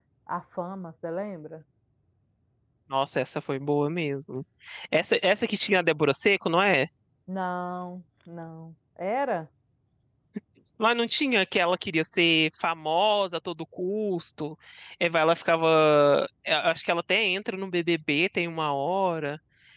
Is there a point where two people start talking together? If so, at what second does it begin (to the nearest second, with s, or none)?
none